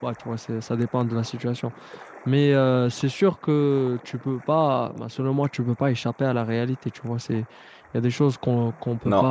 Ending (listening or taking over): listening